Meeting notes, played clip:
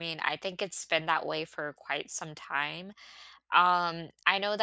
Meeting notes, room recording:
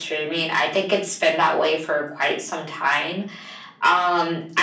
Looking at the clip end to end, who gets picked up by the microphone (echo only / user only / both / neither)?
echo only